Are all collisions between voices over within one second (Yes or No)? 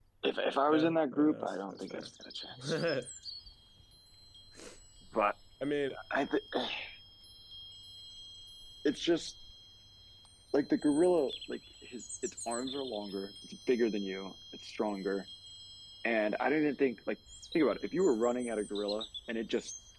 No